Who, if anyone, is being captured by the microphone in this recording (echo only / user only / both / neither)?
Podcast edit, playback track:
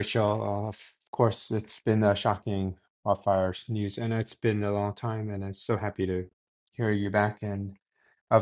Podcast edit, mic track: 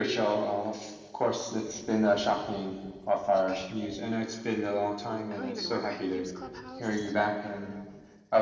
both